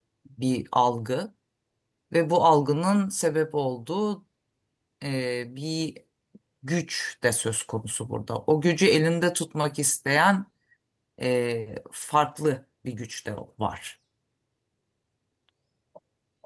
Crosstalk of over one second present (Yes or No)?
No